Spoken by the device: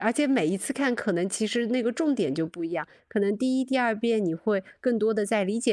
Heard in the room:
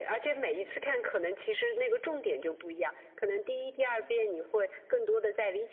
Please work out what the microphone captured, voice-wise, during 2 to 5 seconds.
echo only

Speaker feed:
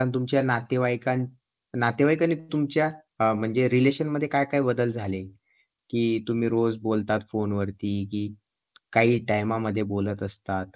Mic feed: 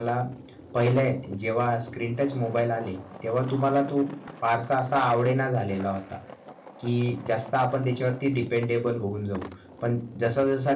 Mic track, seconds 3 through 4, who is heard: user only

